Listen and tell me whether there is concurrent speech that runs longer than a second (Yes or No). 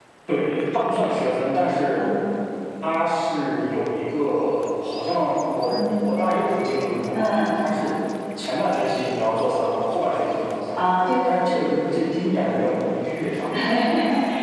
No